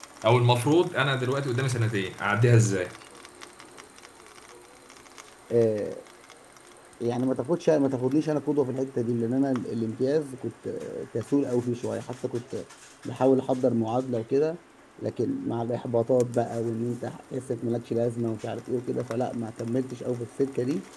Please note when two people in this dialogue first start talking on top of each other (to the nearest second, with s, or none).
none